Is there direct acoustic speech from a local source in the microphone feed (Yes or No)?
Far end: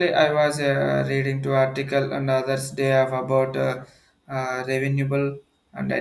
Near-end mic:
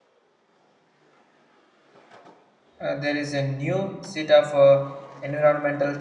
Yes